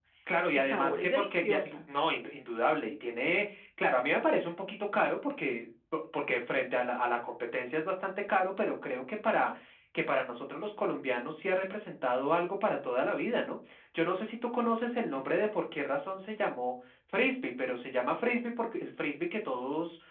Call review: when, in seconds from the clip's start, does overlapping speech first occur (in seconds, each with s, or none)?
0.5 s